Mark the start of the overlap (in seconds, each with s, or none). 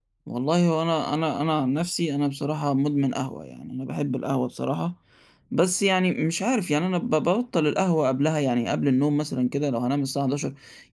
none